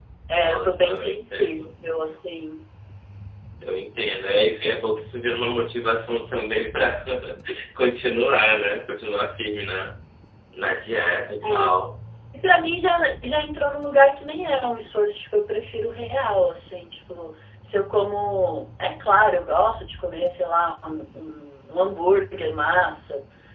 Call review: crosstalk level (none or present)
present